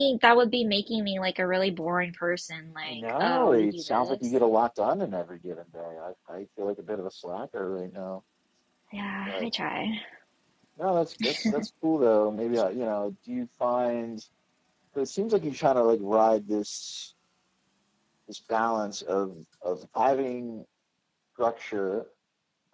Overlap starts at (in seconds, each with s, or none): 2.9 s